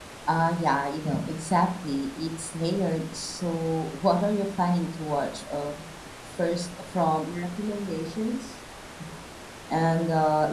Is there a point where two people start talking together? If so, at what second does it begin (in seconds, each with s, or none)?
none